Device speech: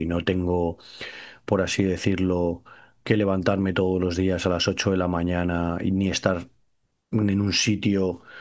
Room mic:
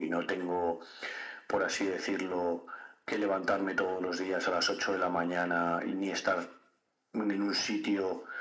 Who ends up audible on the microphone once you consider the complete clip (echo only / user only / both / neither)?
echo only